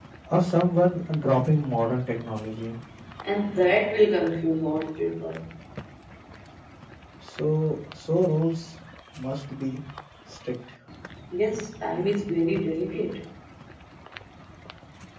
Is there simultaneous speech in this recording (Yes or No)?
No